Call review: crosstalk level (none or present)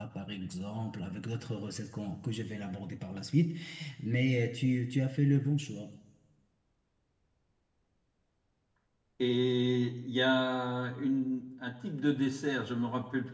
none